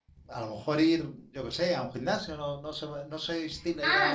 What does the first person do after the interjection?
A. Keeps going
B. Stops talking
B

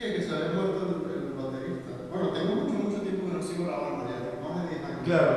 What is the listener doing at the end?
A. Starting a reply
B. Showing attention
A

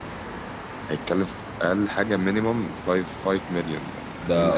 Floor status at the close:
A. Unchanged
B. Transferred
B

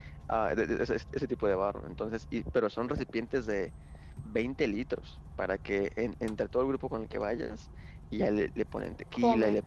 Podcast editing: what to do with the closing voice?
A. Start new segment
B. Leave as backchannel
B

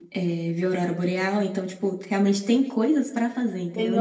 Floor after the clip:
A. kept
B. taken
B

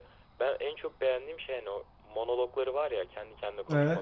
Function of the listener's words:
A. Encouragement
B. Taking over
A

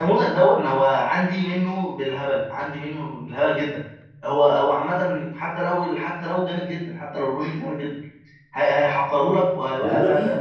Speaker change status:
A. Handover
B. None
A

